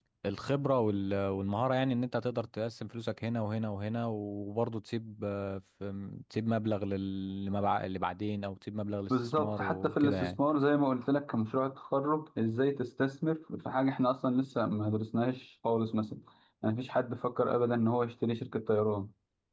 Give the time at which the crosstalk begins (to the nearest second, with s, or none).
9 s